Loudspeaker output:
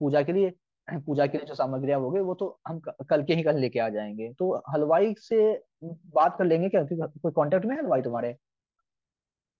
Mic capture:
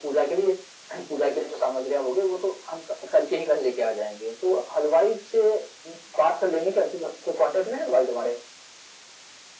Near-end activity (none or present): none